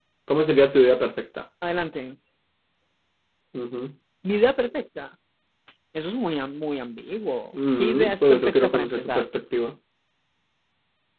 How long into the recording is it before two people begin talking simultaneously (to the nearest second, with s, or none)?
8 s